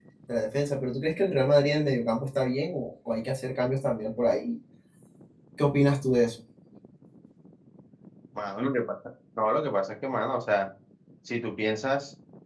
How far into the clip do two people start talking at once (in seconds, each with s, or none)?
none